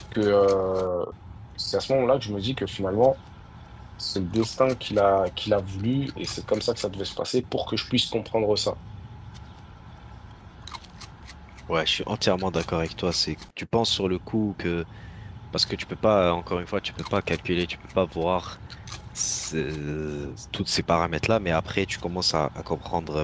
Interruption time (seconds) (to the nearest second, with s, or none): none